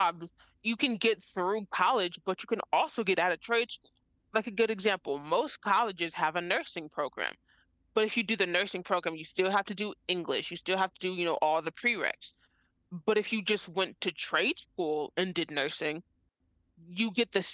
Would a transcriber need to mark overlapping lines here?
No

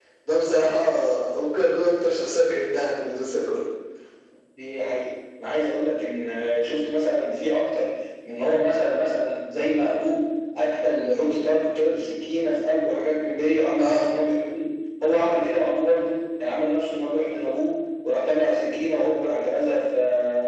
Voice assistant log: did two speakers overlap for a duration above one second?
No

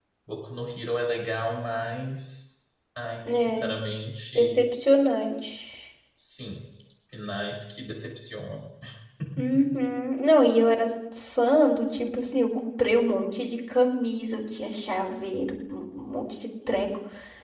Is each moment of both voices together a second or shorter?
Yes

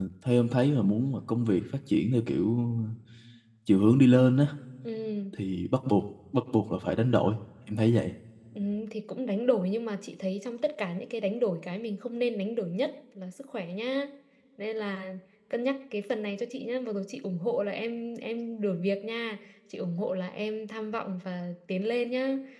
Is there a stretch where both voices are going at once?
No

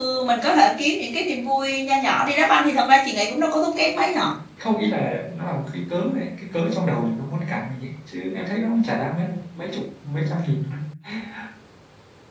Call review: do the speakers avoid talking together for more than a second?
Yes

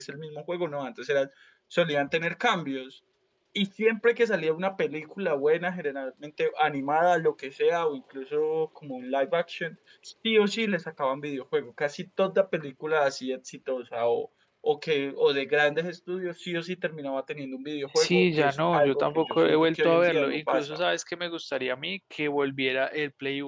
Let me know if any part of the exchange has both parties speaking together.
Yes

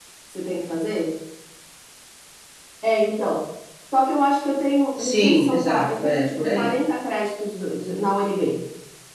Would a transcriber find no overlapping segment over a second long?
No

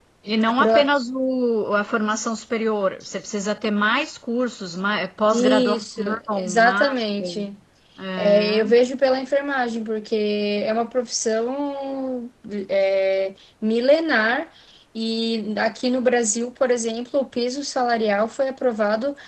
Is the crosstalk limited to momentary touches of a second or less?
No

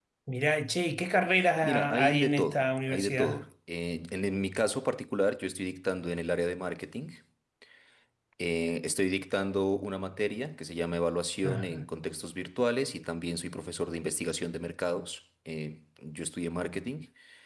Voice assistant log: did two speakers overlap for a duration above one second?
Yes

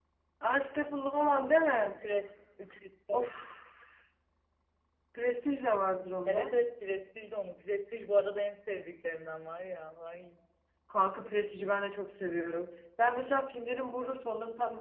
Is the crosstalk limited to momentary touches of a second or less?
Yes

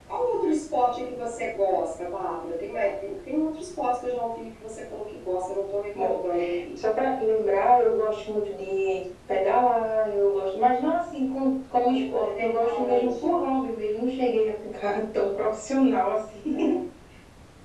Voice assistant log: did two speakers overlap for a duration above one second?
Yes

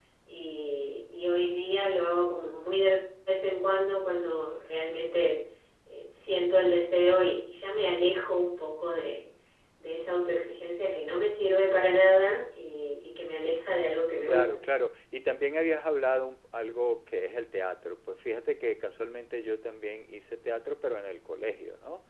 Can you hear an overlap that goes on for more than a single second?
No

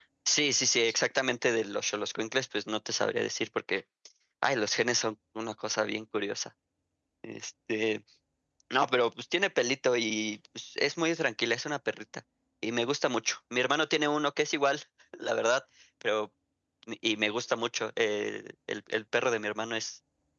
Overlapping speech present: No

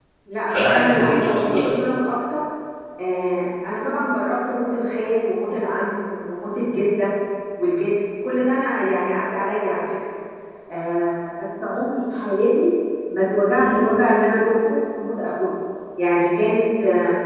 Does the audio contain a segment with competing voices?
Yes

